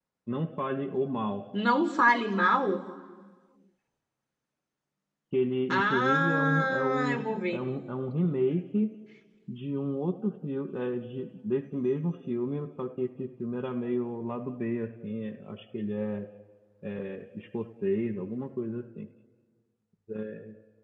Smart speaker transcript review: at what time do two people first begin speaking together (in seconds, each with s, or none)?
5.7 s